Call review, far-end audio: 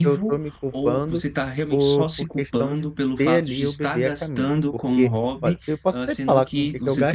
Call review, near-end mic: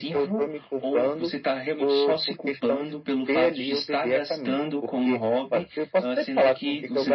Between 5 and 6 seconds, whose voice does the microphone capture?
echo only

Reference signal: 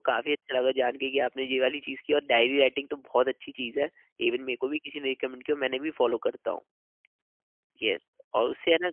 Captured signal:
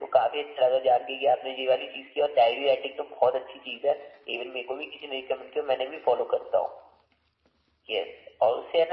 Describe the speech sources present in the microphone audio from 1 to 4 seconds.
echo only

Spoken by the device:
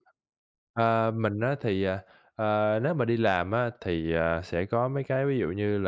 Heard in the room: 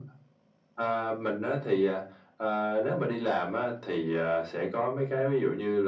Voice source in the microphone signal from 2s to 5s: echo only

